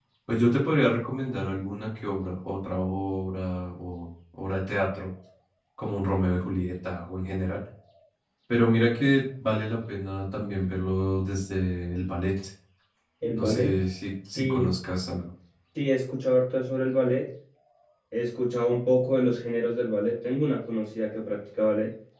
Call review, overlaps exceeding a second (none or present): none